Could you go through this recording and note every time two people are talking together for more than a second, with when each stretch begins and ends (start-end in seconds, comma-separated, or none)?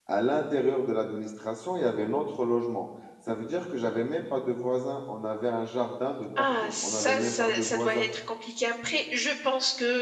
6.4-8.1